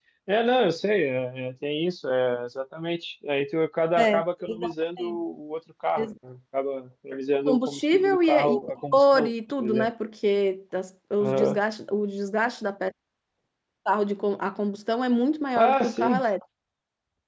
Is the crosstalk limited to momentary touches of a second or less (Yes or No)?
No